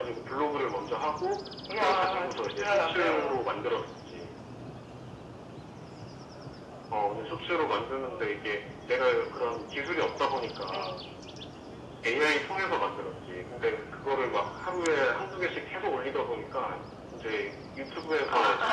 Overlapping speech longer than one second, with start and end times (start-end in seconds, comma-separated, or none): 1.8-3.4